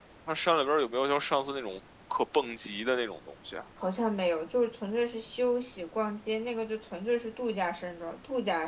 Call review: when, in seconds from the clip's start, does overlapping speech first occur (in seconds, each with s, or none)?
none